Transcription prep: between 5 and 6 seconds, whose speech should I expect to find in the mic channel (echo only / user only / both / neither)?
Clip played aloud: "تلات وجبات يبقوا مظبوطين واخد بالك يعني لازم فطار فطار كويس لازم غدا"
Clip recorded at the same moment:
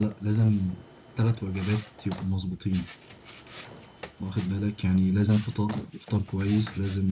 echo only